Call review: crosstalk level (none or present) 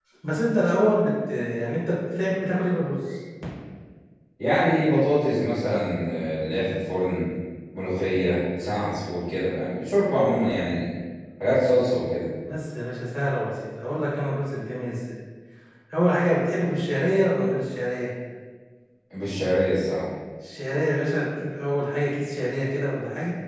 none